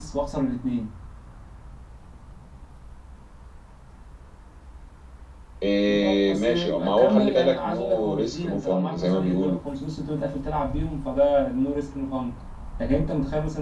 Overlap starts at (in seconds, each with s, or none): 5.9 s